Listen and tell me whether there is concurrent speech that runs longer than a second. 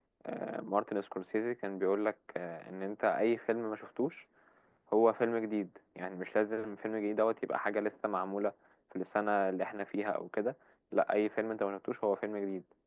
No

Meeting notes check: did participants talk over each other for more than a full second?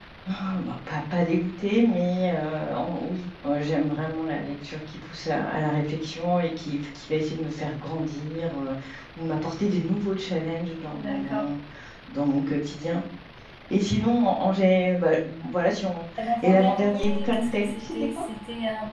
Yes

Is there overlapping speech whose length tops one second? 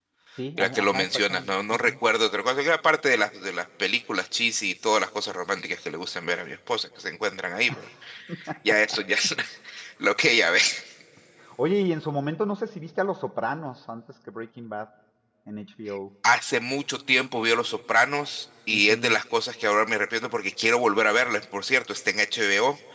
Yes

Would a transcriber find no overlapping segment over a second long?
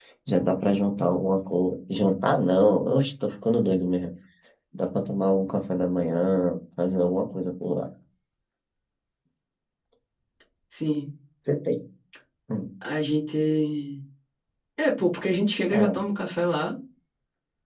Yes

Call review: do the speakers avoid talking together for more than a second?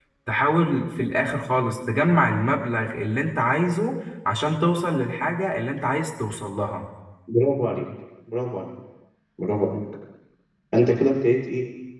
Yes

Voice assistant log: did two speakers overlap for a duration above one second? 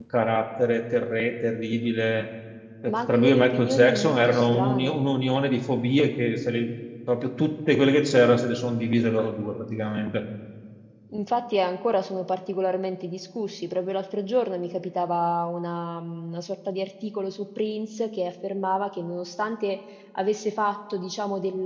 Yes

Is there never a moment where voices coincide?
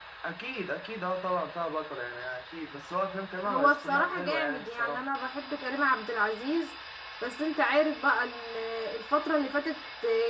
No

